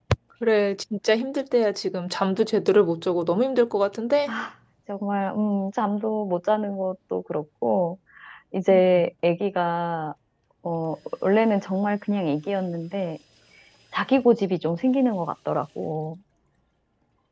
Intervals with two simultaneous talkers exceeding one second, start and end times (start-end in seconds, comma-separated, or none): none